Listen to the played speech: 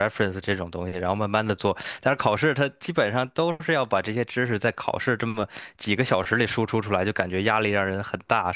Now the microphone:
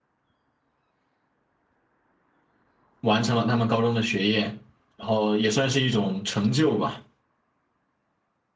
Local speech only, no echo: 完成了他们高中的学业，然后也算是一种成就吧。

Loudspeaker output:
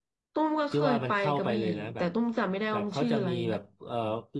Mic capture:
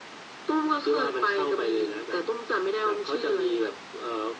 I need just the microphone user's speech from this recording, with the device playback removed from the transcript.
none

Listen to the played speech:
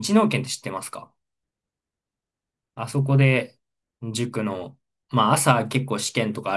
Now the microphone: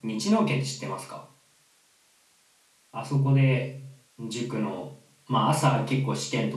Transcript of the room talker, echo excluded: none

